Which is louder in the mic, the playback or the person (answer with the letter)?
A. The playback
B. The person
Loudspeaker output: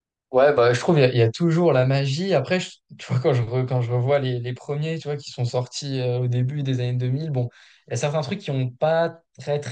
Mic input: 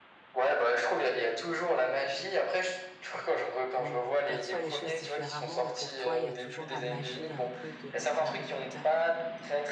A